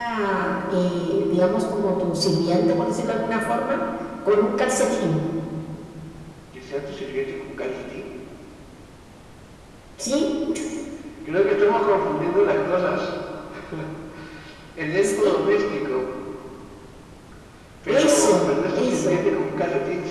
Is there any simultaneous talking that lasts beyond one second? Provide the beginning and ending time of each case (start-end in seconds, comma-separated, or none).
17.9-19.2